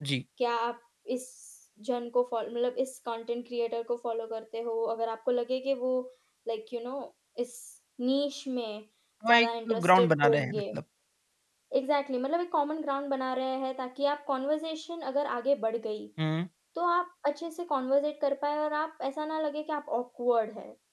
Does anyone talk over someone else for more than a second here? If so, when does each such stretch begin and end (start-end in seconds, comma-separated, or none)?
9.3-10.6